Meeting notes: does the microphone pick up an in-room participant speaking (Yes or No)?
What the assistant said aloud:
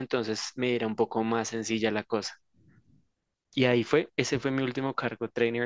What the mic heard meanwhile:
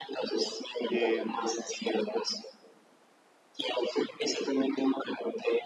Yes